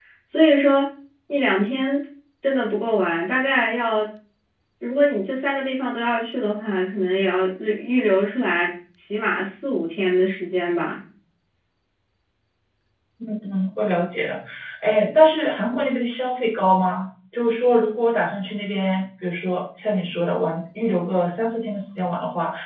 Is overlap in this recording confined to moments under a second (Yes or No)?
Yes